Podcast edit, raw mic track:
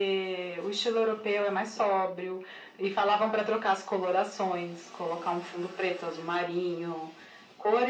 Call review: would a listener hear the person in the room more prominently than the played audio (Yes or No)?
No